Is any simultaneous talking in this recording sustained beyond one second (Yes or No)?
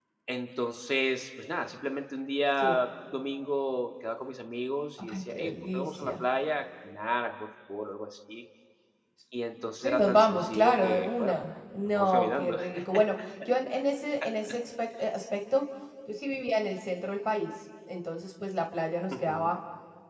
Yes